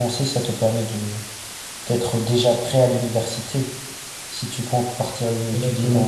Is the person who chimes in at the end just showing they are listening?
Yes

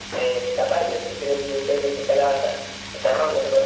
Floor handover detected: No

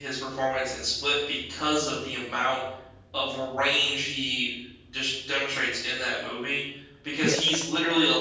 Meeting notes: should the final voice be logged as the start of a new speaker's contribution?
No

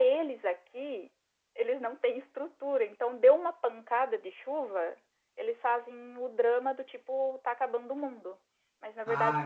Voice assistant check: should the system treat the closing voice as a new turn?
No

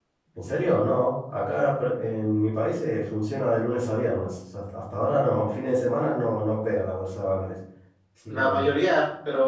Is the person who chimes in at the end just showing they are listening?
No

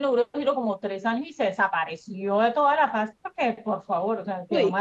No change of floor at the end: Yes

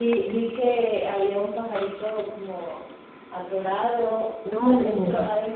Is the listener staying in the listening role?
Yes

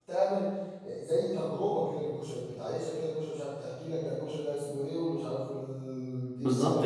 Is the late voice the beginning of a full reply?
Yes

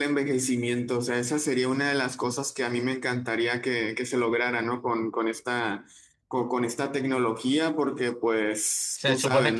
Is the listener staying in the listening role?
No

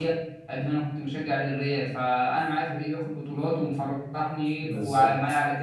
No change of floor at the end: Yes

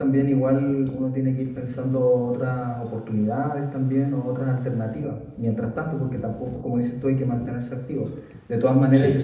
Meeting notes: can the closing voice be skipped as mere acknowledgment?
Yes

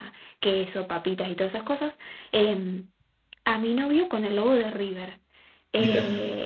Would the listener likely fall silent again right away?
Yes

